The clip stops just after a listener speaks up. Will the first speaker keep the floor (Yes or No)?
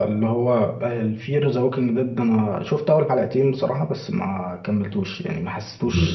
Yes